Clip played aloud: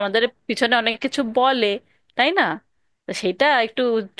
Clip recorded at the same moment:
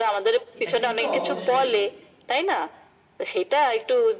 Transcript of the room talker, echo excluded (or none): এটা কিন্তু অবশ্যই